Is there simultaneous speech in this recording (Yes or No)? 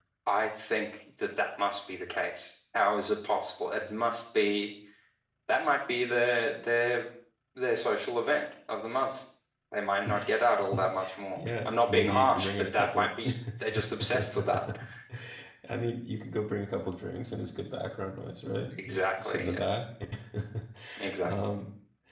Yes